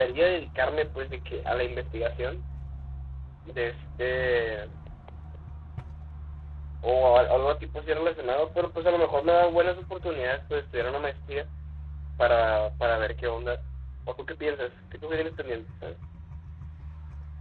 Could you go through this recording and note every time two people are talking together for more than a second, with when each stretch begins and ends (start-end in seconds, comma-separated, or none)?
none